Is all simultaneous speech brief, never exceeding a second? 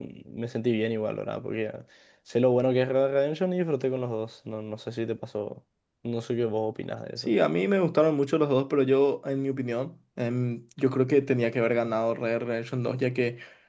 Yes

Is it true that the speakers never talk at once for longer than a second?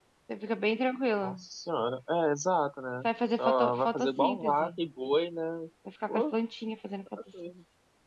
No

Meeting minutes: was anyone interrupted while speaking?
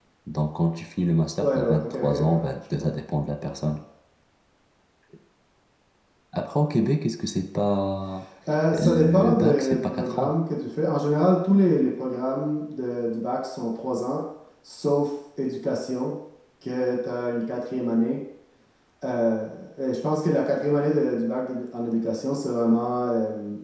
Yes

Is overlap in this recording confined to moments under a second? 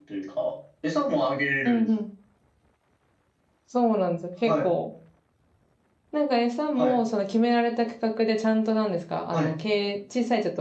Yes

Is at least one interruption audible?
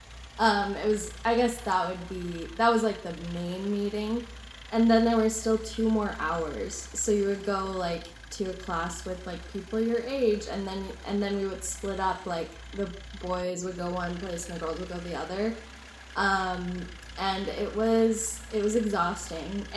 No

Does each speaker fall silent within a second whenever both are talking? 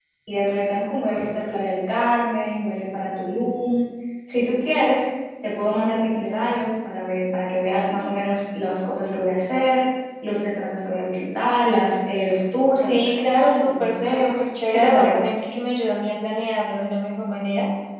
No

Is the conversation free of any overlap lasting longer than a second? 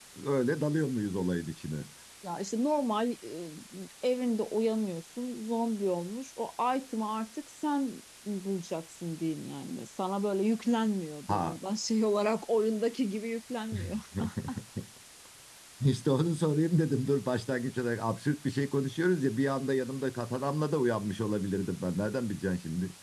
Yes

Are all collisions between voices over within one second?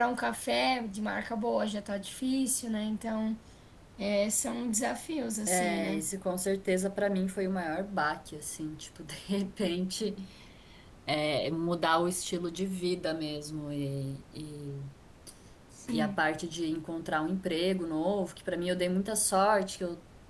Yes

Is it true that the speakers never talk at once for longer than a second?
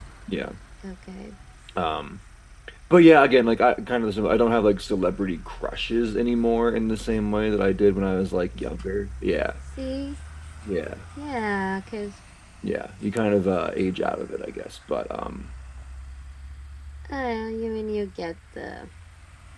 Yes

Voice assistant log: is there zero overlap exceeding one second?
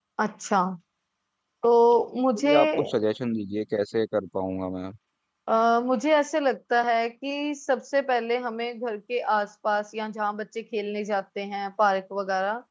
Yes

